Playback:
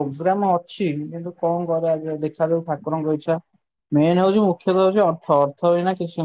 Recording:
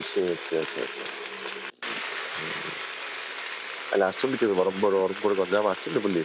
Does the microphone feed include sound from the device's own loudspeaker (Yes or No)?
No